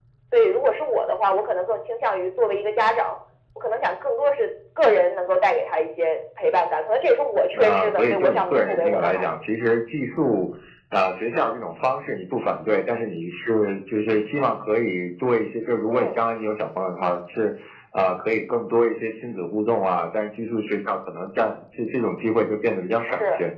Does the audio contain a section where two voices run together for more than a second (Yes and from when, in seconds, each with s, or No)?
Yes, from 7.5 s